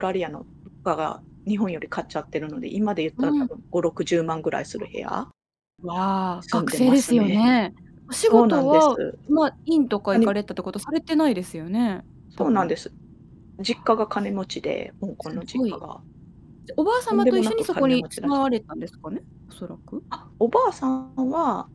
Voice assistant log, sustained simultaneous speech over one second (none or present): present